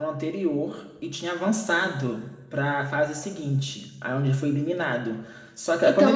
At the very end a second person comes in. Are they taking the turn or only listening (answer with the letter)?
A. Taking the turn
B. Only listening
A